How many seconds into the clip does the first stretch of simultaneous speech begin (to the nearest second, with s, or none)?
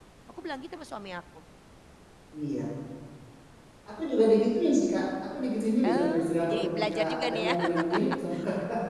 6 s